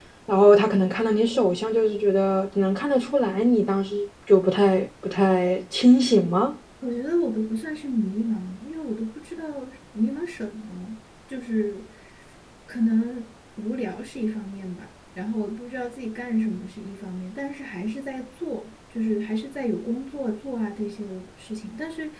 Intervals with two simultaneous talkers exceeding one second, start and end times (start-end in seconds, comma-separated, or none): none